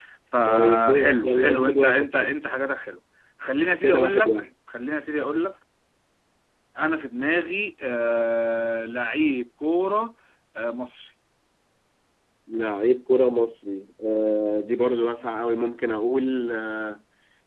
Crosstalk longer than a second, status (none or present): present